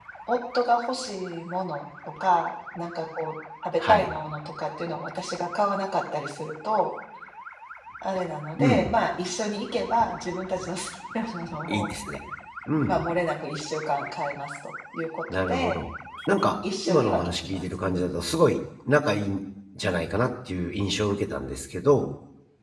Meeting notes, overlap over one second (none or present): present